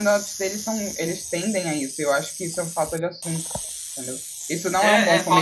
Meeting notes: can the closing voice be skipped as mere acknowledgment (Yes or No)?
No